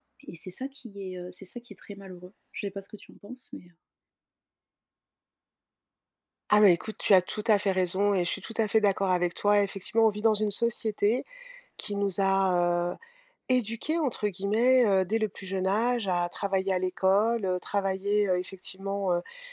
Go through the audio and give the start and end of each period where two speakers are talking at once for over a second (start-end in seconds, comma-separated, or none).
none